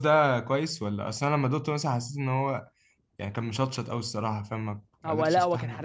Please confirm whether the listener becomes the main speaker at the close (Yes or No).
Yes